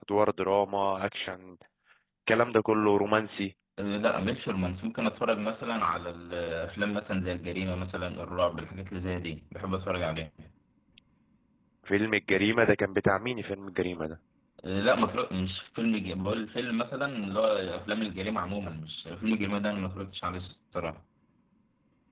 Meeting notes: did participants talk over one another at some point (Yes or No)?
No